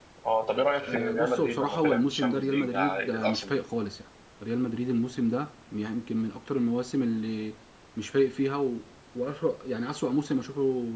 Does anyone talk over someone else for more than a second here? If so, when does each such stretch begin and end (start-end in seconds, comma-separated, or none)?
0.8-3.5